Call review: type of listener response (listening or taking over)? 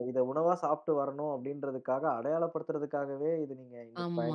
taking over